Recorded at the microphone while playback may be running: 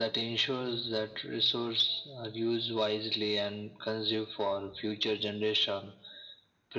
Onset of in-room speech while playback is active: none

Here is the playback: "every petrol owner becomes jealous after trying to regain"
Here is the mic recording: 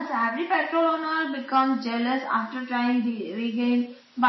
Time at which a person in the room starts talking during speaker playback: none

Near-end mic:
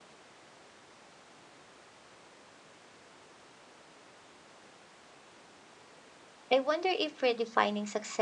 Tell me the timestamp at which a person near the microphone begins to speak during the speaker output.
6.5 s

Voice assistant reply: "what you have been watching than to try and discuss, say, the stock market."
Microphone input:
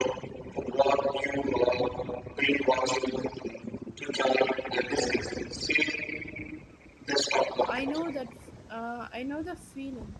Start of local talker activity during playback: 7.7 s

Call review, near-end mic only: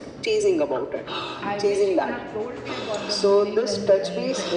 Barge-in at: 1.4 s

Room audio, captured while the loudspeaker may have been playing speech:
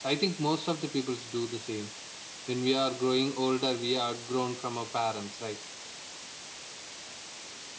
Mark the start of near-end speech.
none

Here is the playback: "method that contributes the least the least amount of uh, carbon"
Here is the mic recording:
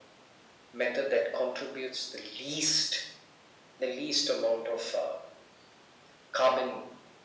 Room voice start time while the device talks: none

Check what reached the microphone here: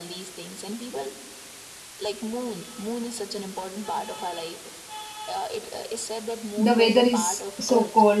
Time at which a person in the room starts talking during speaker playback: 6.5 s

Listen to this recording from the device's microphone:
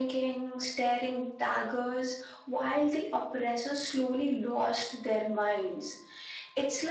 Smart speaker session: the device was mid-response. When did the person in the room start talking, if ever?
none

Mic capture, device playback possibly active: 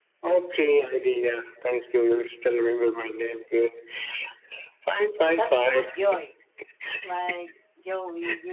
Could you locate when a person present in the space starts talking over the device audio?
5.3 s

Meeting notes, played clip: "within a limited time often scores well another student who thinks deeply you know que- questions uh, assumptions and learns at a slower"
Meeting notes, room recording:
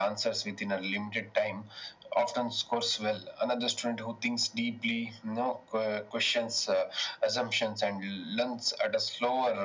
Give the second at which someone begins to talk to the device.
none

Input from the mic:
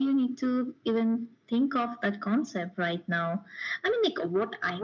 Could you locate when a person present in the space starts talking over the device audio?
none

